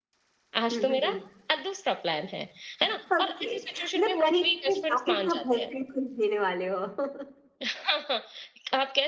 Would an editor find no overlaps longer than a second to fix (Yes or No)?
No